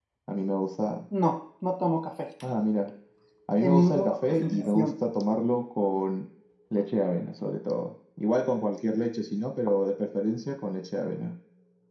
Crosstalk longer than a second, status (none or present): present